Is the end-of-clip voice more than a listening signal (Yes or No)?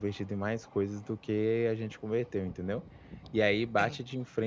No